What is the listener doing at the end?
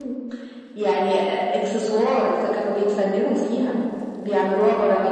listening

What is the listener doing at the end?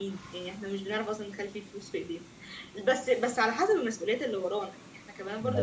listening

